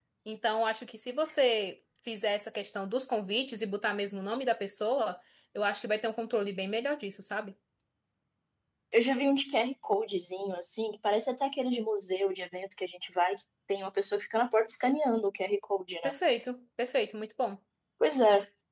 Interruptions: none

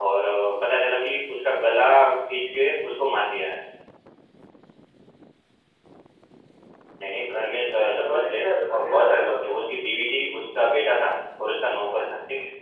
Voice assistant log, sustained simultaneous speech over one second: present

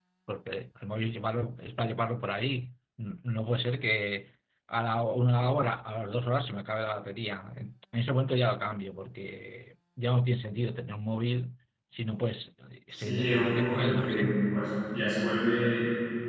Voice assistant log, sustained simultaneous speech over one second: present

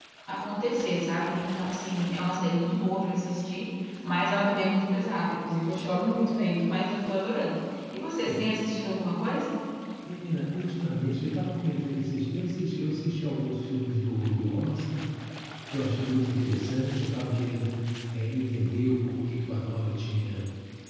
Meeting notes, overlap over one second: none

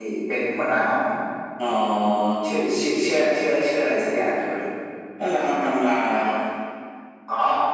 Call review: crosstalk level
none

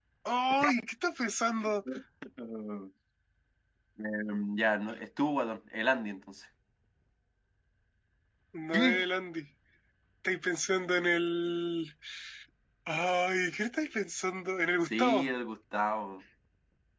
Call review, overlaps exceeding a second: none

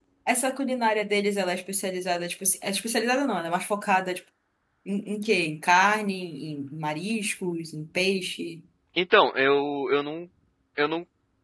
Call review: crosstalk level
none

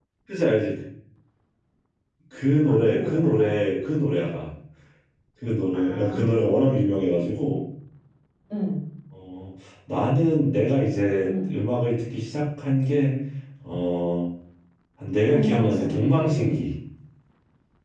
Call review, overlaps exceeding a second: present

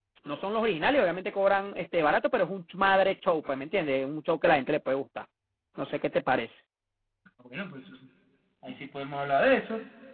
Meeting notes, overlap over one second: none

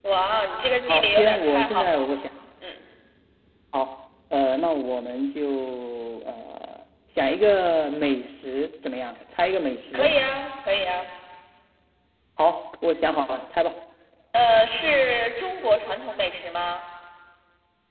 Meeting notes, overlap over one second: present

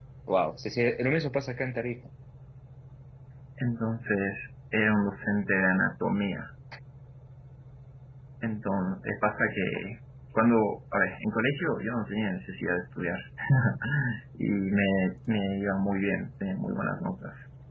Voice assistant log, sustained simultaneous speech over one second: none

